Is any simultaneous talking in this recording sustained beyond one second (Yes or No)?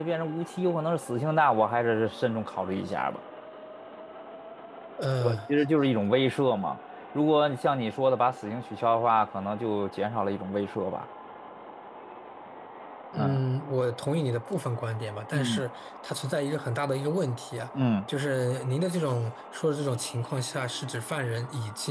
No